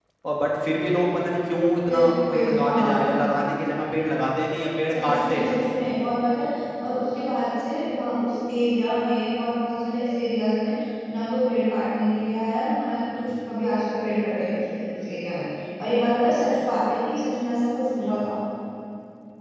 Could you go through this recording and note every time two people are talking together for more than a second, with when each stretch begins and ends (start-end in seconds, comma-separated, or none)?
1.9-3.2